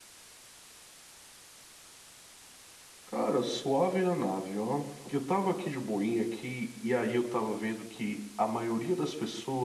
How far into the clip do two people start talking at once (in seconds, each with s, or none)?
none